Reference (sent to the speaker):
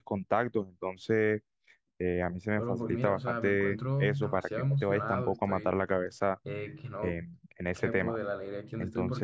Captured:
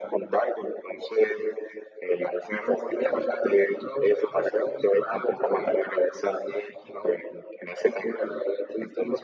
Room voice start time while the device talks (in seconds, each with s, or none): none